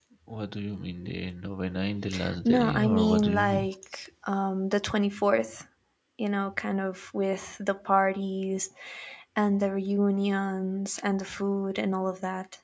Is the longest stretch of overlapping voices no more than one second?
No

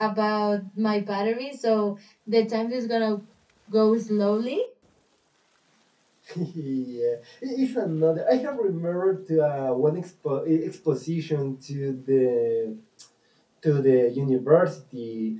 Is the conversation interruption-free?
Yes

